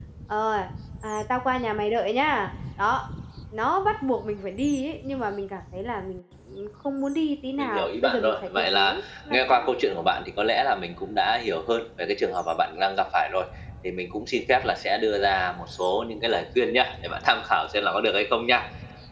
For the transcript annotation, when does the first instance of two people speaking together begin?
7.6 s

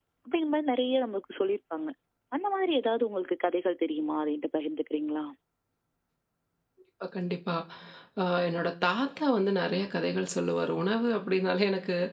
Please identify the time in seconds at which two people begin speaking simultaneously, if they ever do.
none

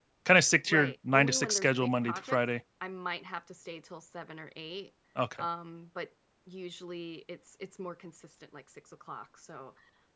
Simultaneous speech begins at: 0.7 s

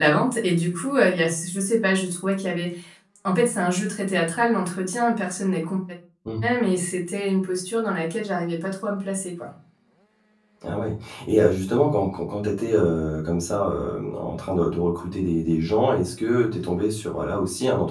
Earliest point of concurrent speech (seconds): none

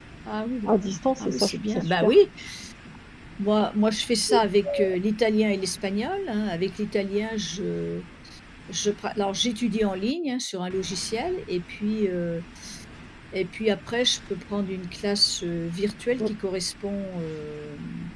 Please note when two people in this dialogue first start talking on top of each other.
0.7 s

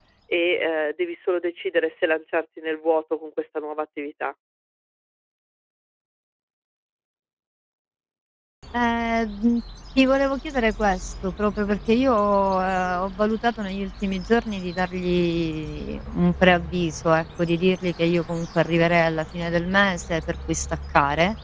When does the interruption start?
none

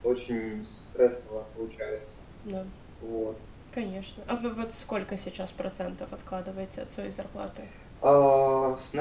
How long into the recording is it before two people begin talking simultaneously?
none

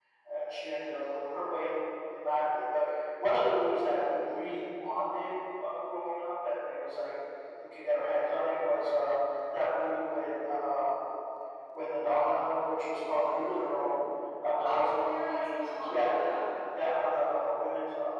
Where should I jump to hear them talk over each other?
14.7 s

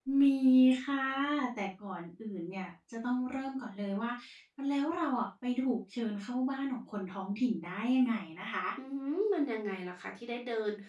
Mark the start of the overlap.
none

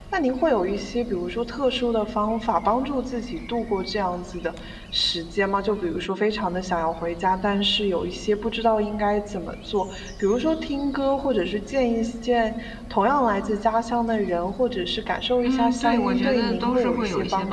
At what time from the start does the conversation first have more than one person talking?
15.4 s

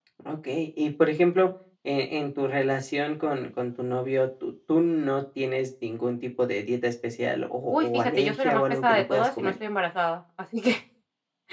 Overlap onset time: 7.7 s

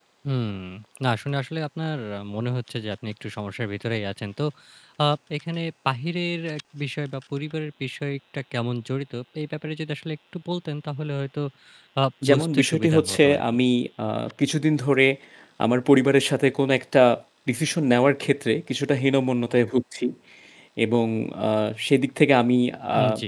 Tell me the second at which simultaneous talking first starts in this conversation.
12.3 s

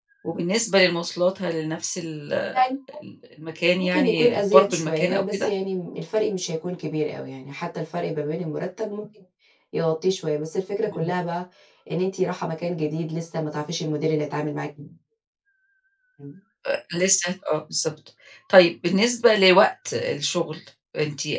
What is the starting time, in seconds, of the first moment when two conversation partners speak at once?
3.8 s

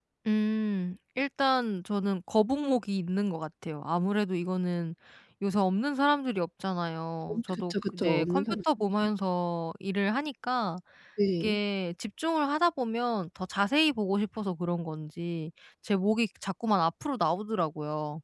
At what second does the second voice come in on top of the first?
7.3 s

